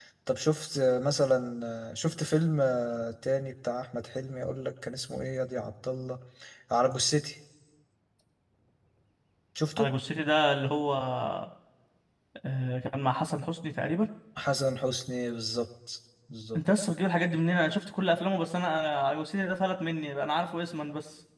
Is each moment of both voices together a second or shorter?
Yes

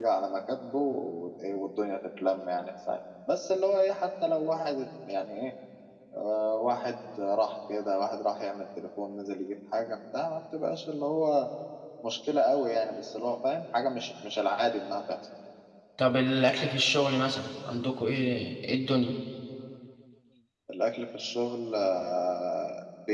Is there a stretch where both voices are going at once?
No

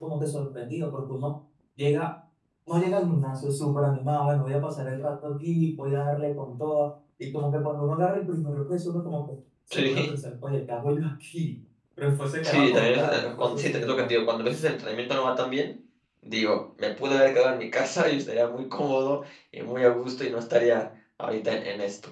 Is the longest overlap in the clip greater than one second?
Yes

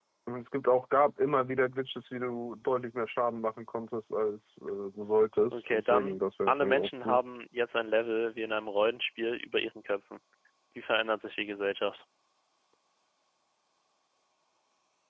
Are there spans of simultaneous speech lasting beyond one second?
Yes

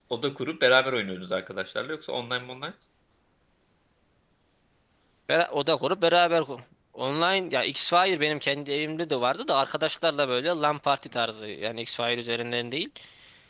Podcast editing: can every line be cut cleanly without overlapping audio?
Yes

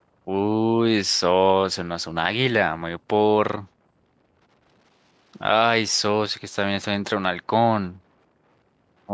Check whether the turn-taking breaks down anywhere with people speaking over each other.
No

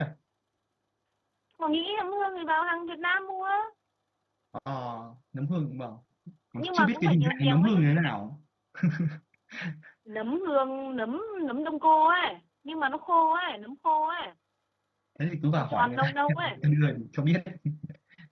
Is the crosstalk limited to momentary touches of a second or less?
No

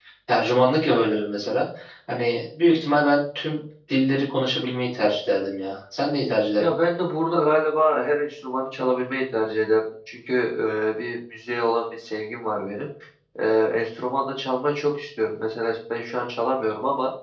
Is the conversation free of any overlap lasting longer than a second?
Yes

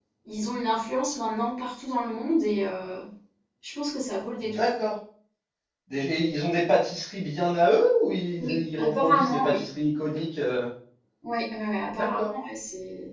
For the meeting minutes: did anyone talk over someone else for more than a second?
Yes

